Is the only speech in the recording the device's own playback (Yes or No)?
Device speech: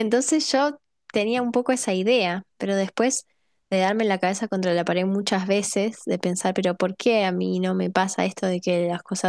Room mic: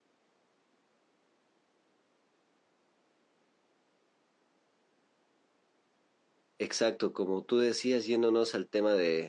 No